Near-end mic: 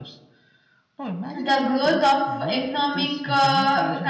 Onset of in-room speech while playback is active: 1.3 s

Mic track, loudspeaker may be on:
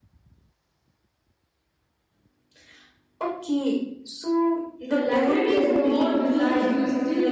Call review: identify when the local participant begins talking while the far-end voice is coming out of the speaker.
4.9 s

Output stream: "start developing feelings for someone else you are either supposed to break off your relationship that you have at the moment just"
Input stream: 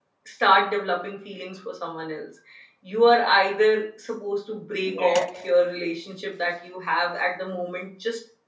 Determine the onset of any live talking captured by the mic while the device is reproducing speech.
4.9 s

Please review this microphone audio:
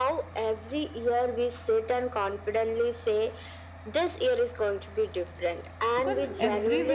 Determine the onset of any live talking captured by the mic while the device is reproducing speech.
6.0 s

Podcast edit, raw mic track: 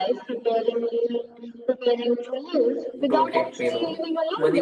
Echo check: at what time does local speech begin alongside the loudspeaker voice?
3.0 s

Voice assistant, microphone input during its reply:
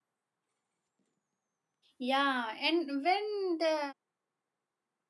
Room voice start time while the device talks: 2.0 s

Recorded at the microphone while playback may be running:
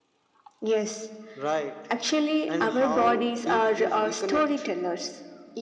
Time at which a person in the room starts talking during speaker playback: none

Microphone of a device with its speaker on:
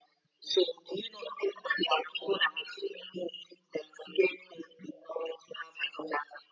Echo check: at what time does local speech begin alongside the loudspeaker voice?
none

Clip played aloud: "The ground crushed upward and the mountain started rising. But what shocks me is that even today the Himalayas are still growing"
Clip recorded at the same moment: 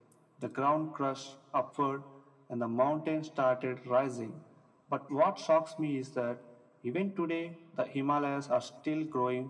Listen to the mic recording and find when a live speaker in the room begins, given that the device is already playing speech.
none

